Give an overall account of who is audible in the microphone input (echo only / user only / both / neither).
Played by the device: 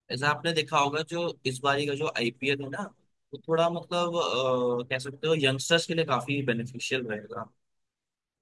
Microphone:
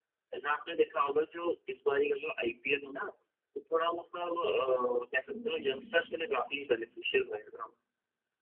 both